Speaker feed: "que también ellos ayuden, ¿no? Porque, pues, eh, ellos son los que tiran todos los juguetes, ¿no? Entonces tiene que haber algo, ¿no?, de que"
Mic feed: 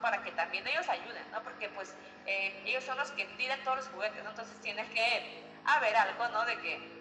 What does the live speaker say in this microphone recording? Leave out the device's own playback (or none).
none